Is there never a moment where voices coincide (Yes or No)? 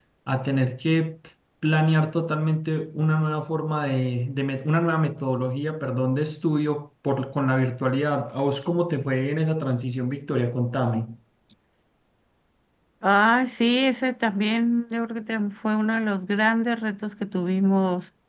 Yes